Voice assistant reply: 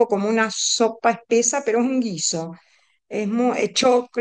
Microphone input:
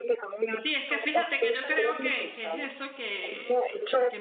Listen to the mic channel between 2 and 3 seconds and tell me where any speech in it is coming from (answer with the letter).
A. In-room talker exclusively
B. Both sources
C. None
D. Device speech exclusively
B